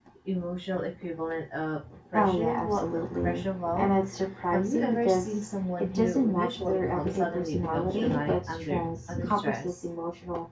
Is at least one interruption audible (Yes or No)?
Yes